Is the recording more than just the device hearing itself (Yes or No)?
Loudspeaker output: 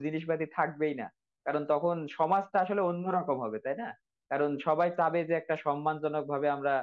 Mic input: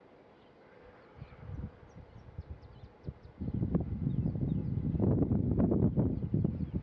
No